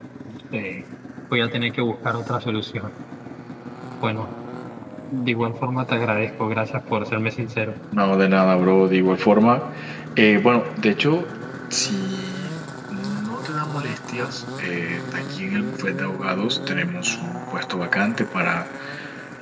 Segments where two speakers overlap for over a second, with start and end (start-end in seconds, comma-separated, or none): none